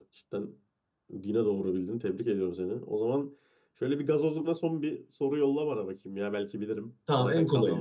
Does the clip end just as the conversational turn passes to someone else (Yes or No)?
Yes